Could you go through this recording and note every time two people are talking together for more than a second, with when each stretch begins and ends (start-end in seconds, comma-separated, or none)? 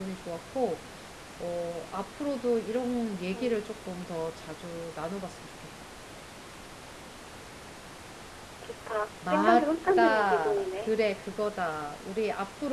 9.3-11.0